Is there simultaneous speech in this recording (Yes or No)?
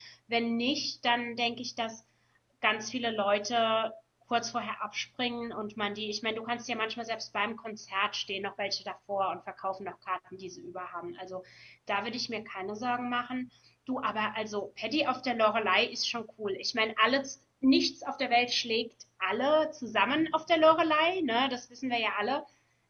No